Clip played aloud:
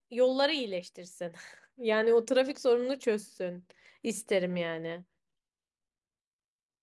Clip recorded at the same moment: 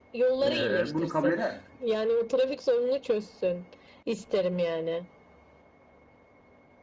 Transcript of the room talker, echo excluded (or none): E, bunu kabul eder miydin?